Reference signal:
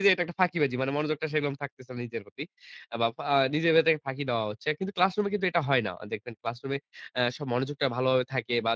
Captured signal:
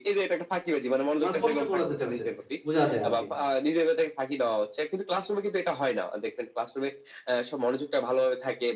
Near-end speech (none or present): present